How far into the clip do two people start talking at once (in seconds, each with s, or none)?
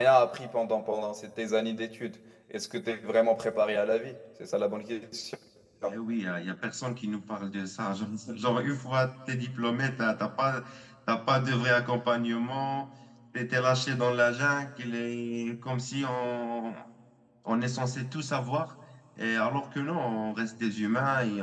none